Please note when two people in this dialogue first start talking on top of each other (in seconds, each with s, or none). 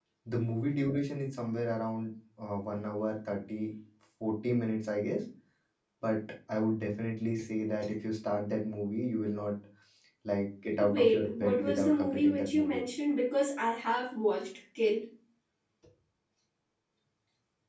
10.8 s